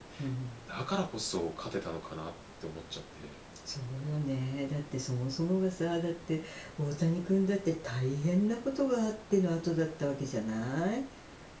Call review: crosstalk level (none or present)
none